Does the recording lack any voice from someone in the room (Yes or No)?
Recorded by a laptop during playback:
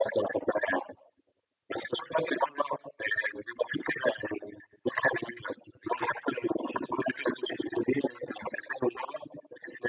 Yes